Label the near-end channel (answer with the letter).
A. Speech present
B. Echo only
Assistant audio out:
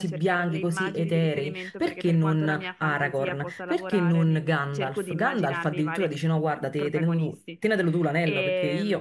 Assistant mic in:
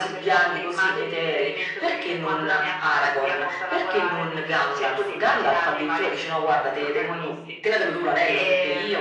B